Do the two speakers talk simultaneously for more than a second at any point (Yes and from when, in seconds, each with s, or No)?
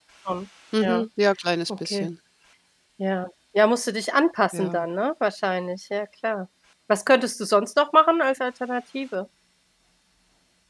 No